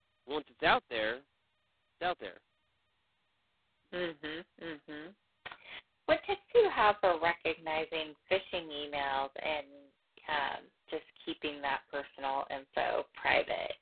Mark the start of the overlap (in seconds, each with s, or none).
none